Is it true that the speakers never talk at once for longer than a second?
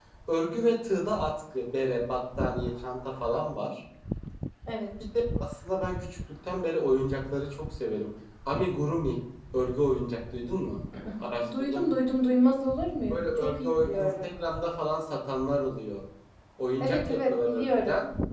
No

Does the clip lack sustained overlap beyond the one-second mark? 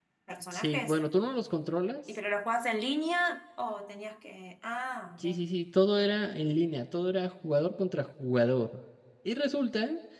Yes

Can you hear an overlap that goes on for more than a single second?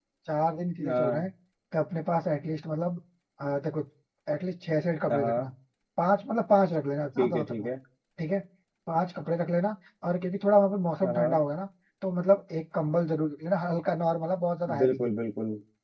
No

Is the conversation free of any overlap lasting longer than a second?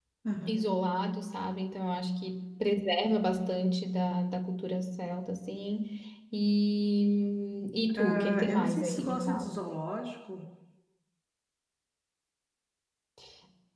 No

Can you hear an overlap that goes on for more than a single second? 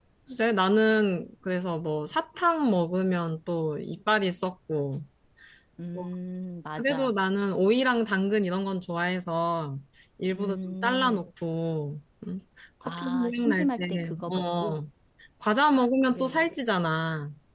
Yes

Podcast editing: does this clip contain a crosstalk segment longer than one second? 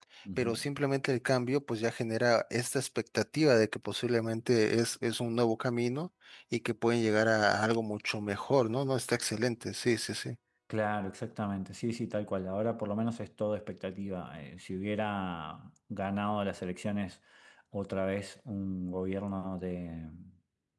No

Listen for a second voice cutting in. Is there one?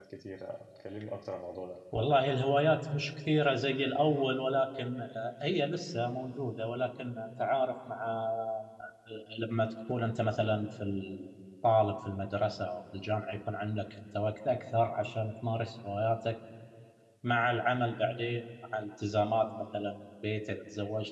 No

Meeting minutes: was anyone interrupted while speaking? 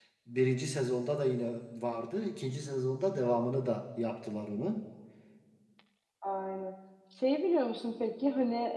No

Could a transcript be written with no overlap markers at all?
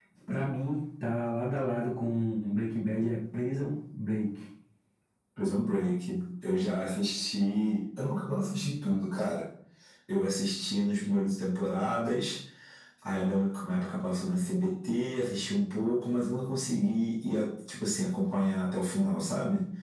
Yes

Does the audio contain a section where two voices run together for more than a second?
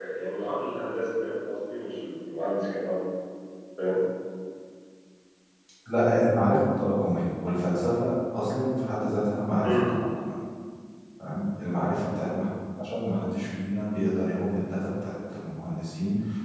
No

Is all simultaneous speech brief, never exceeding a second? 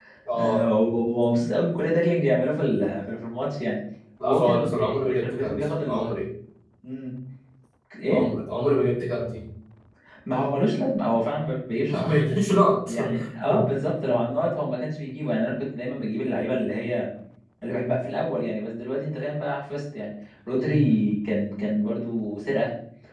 No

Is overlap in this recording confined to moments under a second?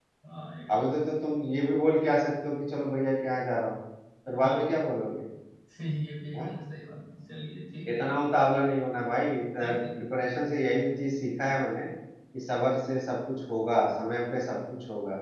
Yes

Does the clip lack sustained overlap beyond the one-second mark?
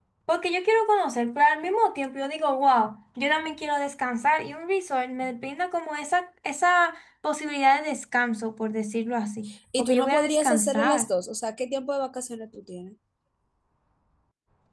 No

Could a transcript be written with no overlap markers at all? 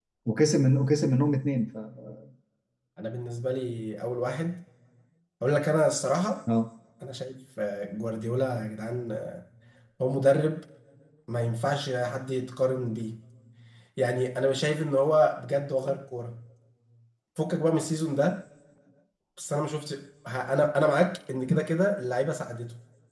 Yes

